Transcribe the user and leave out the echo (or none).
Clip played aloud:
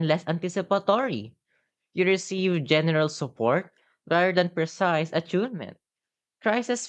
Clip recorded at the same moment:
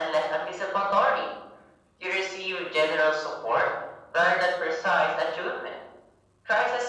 none